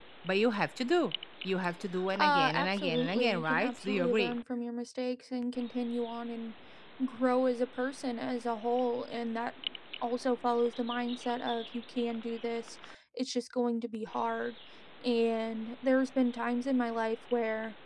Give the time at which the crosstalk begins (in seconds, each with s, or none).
2.1 s